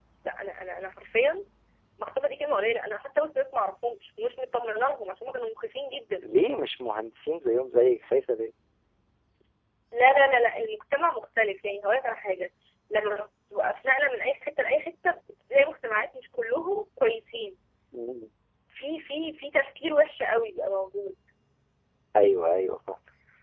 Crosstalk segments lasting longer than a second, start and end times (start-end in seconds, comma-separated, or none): none